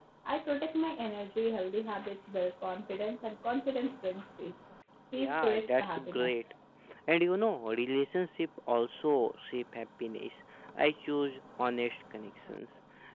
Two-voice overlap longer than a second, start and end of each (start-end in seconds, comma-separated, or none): 5.2-6.4